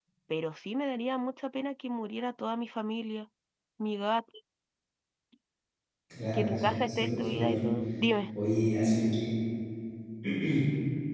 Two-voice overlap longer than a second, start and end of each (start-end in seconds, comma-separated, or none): 6.3-7.7